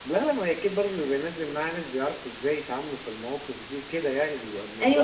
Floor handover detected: Yes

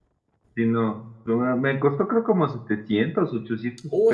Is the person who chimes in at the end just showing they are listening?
No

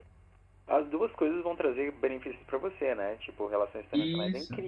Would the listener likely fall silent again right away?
Yes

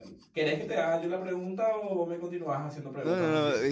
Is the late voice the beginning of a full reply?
Yes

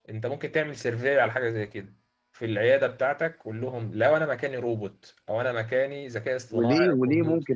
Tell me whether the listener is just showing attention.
No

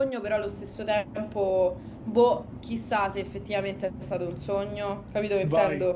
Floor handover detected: Yes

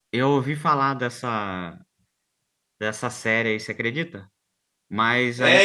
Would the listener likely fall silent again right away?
No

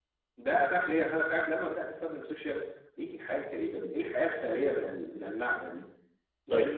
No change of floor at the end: Yes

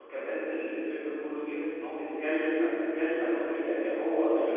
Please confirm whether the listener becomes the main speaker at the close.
Yes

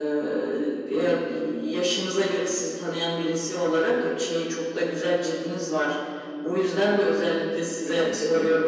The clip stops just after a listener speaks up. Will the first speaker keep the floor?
Yes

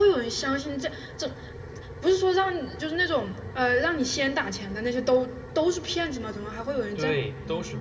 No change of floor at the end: No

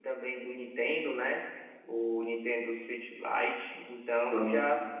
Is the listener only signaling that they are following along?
Yes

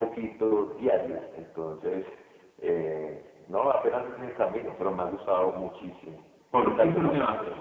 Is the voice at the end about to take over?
Yes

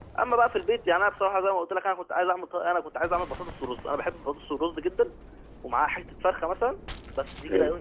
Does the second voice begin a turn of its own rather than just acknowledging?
No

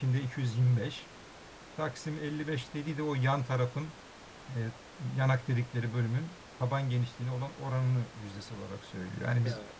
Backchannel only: No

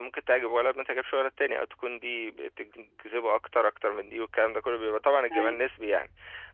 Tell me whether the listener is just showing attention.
Yes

